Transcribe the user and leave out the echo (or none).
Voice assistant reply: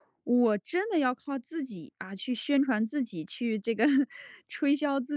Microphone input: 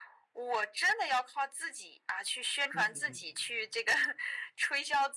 嗯嗯嗯